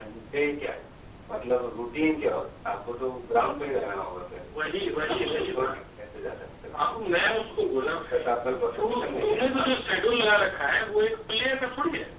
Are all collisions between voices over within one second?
No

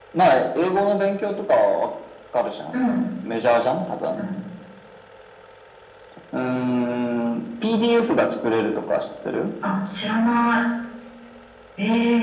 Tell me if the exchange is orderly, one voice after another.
Yes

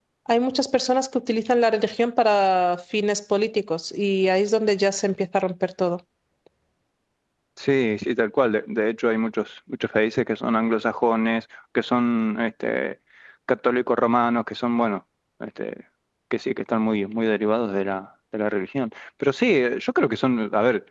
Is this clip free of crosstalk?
Yes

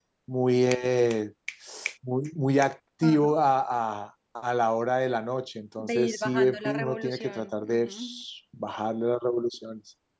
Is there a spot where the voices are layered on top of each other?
Yes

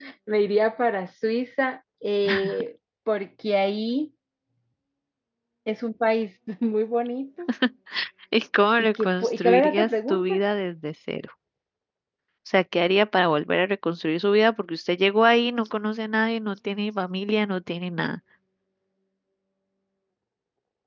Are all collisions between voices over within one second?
No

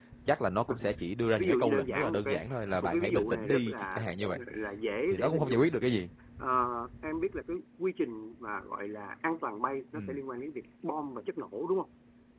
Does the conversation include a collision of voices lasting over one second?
Yes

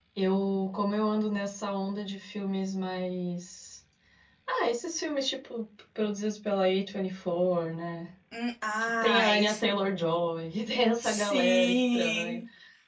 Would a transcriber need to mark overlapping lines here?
Yes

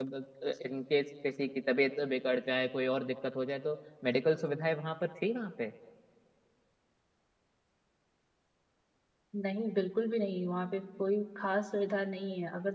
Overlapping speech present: No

